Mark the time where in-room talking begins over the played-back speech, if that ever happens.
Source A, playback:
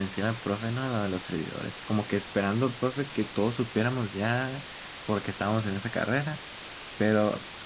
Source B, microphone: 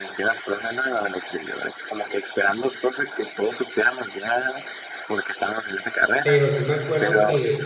6.2 s

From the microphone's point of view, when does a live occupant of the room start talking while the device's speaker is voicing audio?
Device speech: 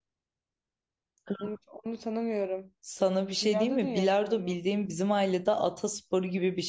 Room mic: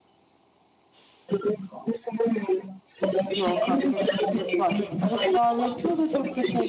3.2 s

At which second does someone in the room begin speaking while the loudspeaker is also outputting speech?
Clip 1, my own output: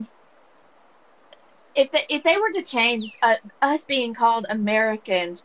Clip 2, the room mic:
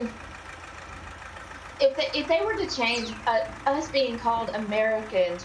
none

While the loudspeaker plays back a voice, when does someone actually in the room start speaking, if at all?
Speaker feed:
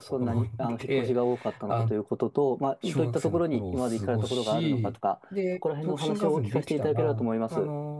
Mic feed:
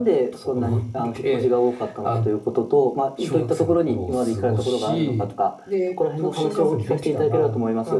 none

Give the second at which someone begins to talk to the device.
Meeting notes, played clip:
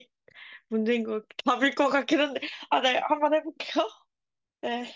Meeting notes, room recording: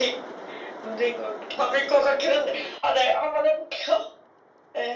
none

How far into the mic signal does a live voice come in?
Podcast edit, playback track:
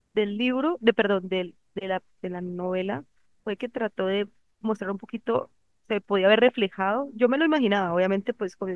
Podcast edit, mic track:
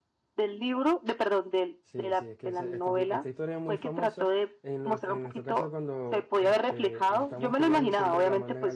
1.8 s

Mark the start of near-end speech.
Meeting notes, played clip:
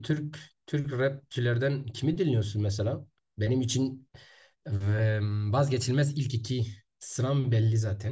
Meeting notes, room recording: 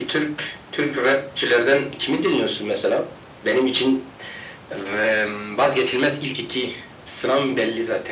none

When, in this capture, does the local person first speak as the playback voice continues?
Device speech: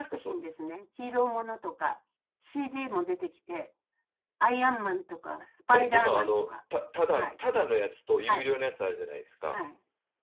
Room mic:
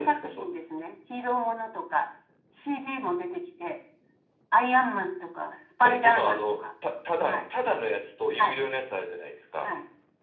none

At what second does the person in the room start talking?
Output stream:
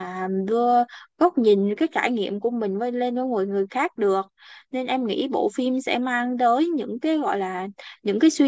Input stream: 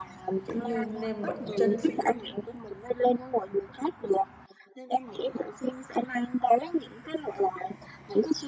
0.4 s

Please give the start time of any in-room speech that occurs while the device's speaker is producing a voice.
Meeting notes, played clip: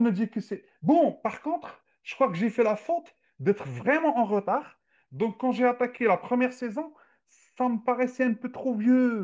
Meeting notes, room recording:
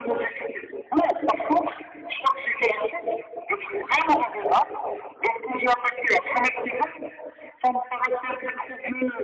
none

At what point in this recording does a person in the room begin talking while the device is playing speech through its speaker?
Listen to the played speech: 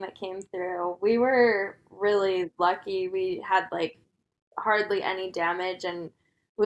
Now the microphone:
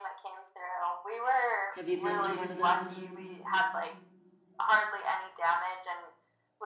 1.7 s

